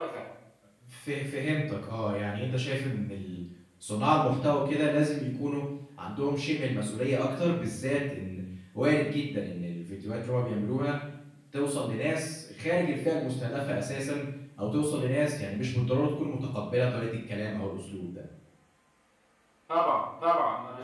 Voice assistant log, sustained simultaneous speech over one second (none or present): none